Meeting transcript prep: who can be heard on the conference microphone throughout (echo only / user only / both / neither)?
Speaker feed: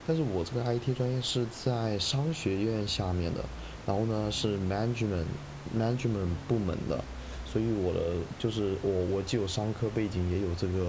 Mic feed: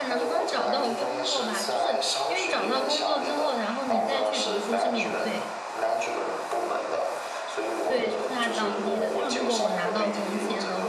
both